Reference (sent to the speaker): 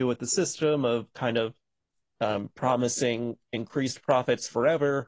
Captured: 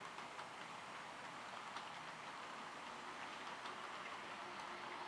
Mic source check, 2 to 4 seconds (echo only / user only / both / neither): neither